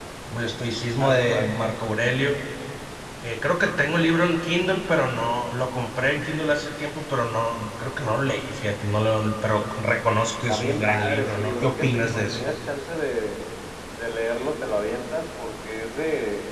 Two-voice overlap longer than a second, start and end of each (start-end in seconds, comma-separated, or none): 10.5-12.4